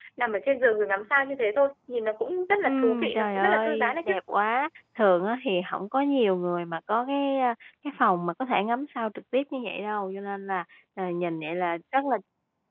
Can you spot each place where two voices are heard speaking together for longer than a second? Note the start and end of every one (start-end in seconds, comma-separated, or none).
2.6-4.1